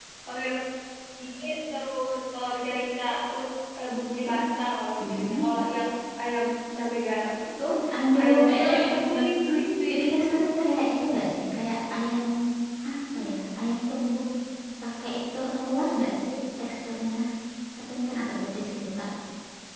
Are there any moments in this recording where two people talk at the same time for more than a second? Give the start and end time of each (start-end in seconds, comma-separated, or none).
8.2-10.7